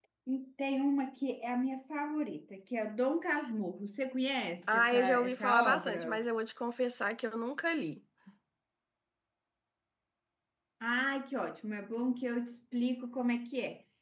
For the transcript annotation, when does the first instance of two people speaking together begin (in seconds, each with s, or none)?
4.7 s